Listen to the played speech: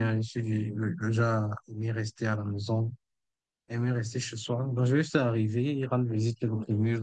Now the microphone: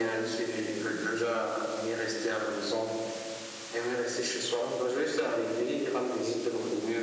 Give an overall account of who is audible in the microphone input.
echo only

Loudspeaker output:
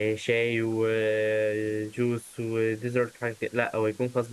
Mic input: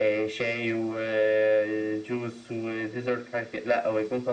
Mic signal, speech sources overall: echo only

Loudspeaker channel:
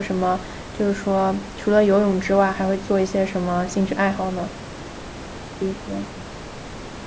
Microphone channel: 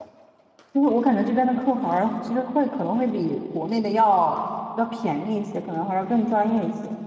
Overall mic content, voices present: user only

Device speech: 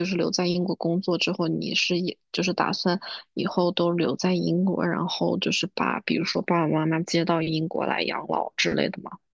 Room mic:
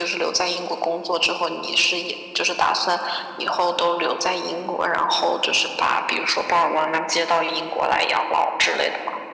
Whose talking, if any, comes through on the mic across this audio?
echo only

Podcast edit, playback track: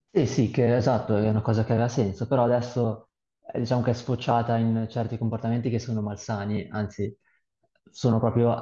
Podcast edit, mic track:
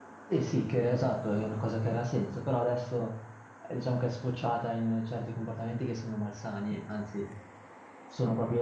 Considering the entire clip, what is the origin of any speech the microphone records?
echo only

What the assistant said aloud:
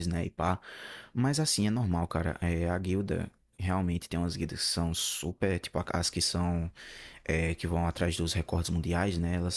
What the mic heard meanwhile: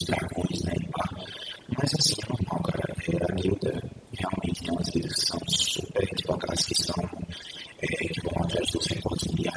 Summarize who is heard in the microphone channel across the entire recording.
echo only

